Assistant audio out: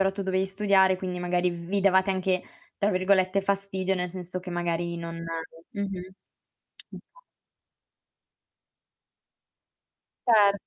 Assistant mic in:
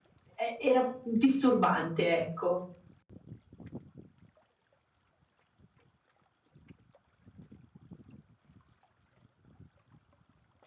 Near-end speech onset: 0.4 s

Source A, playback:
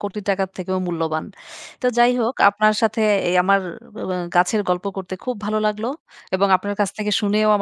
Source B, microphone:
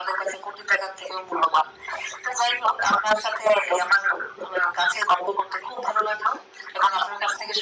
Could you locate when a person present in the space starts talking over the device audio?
none

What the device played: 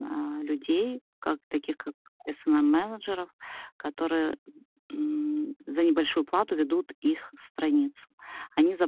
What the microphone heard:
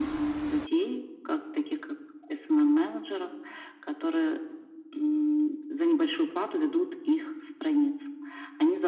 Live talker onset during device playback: none

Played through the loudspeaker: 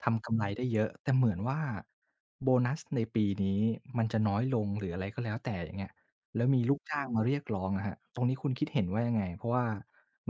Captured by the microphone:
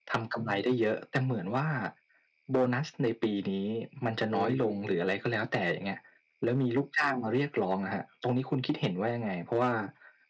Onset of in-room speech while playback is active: 4.0 s

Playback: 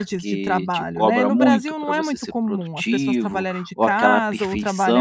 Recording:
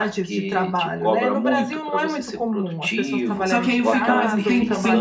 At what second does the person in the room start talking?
3.4 s

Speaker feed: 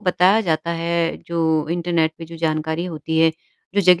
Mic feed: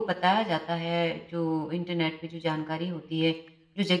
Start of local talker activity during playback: none

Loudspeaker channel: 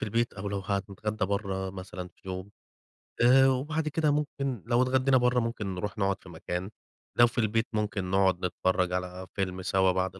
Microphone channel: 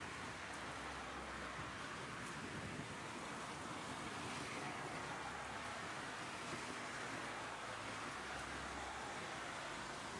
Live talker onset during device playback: none

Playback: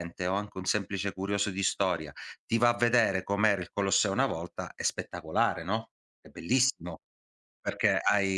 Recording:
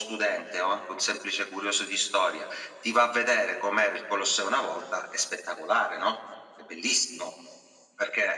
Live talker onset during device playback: none

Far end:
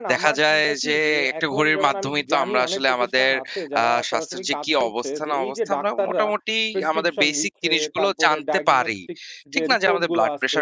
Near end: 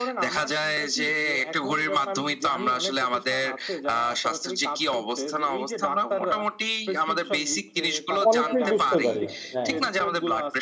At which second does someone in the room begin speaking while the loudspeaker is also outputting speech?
8.3 s

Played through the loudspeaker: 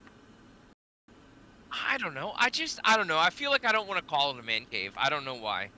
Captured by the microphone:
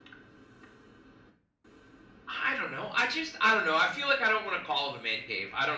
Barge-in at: none

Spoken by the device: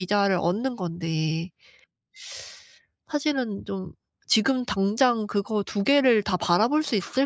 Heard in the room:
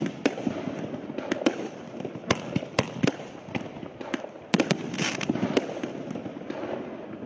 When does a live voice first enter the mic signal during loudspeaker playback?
none

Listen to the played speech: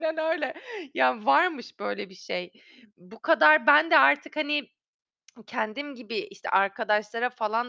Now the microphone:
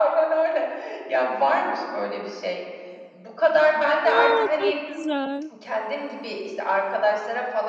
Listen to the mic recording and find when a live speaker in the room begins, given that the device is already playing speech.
4.0 s

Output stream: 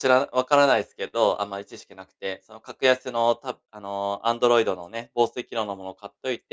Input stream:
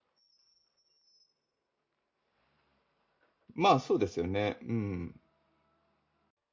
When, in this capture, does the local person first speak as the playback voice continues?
3.5 s

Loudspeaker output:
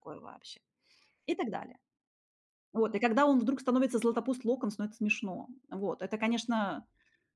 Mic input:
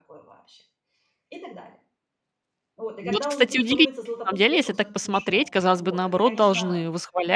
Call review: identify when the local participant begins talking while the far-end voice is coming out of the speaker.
3.0 s

